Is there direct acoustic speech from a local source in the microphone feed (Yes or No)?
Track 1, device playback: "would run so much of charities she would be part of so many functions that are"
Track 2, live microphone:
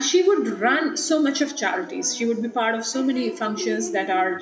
Yes